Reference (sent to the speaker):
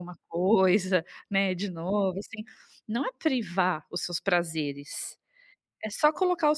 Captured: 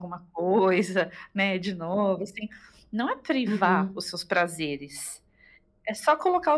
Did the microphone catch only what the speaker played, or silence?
No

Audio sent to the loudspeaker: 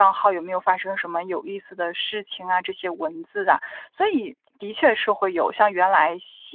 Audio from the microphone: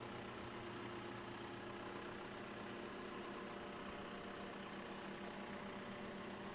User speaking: No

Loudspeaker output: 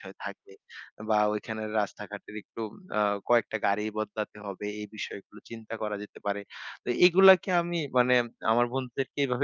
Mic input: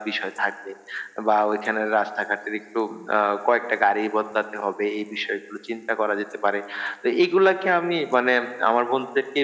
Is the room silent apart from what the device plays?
Yes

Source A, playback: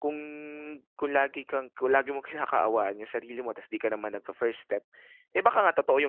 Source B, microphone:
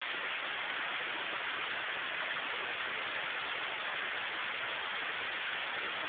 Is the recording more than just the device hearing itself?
No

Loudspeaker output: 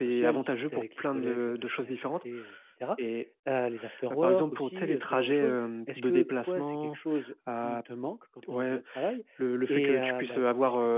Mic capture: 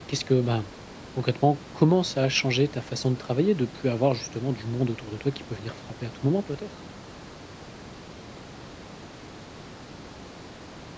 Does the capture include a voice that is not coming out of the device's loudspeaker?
Yes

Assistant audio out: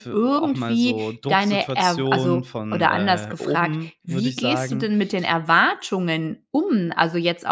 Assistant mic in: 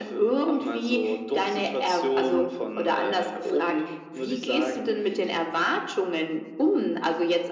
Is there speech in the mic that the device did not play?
No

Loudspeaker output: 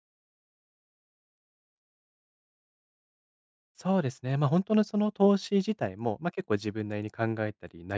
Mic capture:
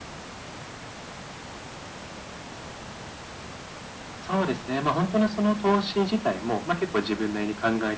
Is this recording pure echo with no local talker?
Yes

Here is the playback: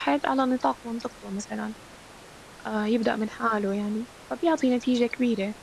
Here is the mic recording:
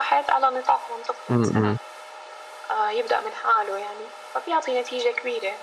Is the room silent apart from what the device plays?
No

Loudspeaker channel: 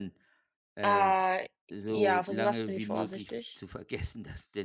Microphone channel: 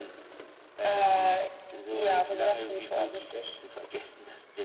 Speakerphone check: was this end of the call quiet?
No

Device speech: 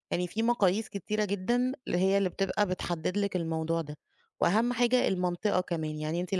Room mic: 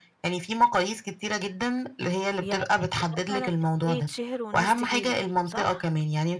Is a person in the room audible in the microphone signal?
Yes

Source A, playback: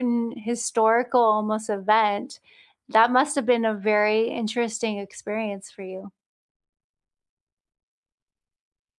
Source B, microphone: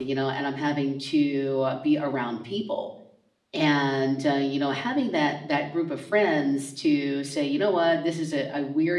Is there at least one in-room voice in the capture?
Yes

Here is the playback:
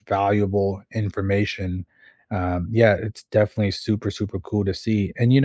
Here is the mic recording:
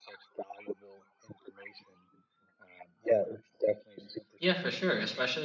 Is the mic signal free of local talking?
No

